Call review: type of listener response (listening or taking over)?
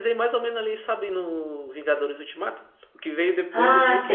listening